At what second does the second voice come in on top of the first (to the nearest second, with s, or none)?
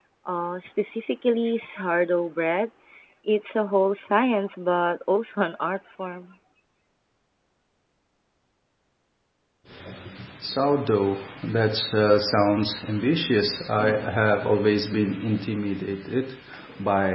none